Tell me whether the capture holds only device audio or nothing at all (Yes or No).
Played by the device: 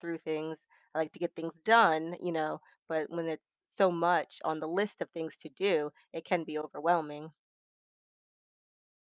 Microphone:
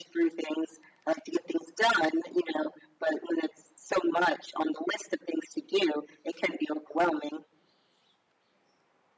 Yes